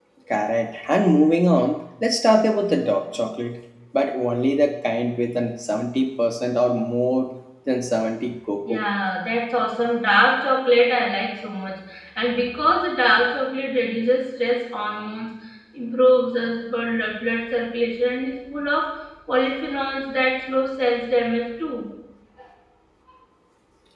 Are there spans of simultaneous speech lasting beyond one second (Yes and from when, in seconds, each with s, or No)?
No